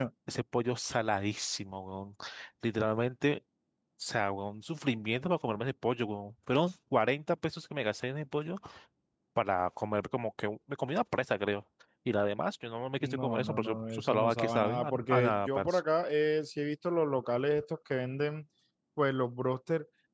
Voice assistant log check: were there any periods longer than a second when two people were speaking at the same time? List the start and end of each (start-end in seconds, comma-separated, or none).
13.0-15.8